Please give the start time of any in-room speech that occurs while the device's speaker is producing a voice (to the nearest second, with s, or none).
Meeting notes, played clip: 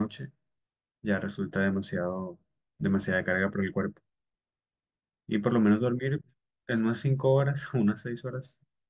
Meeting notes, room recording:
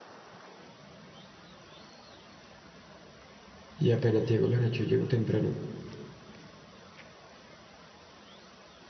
4 s